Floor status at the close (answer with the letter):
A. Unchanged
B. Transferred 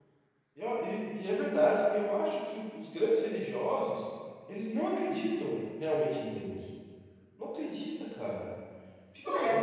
B